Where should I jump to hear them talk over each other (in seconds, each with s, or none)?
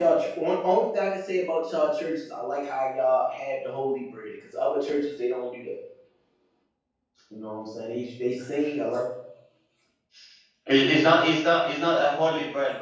none